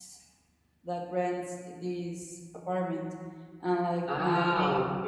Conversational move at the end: taking over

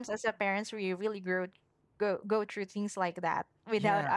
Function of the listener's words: listening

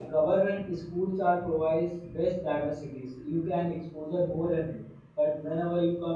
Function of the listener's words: listening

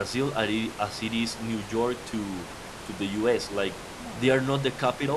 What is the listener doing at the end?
listening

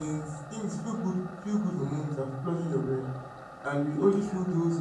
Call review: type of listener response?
listening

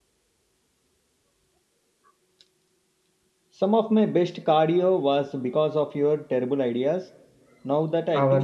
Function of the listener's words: taking over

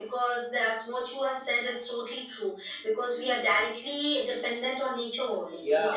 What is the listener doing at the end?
listening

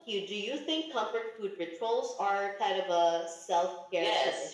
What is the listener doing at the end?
taking over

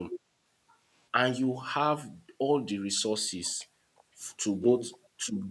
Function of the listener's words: listening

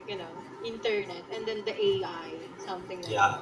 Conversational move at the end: taking over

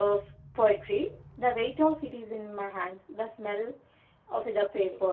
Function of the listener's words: listening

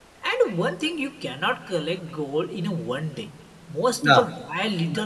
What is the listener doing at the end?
listening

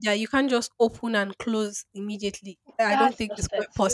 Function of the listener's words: taking over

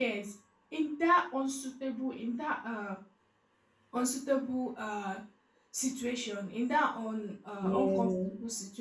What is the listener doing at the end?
listening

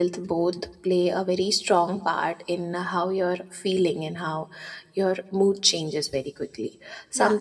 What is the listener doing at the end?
listening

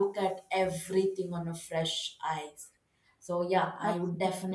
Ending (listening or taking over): listening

